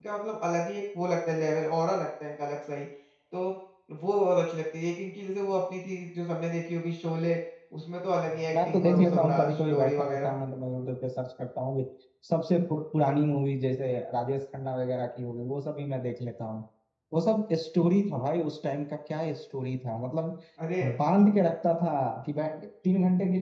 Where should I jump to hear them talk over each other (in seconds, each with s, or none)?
8.5 s